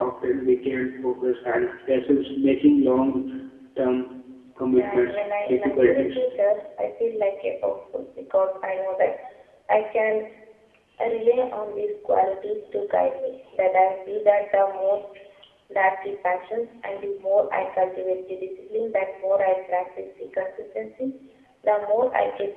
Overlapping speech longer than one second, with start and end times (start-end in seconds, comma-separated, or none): 4.8-6.2